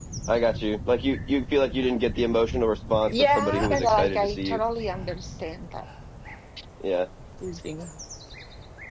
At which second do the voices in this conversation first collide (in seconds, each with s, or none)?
3.1 s